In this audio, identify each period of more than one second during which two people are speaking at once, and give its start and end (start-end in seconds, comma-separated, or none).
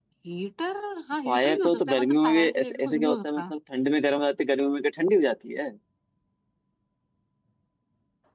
1.2-3.5